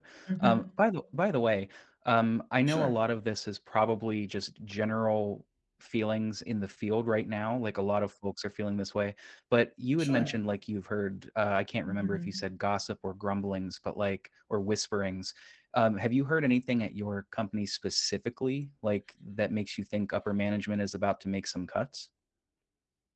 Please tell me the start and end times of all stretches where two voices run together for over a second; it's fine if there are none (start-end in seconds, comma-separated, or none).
none